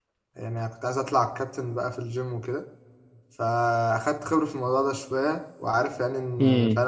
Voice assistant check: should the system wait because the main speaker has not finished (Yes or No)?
Yes